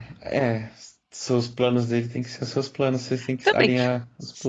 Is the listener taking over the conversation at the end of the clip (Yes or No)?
Yes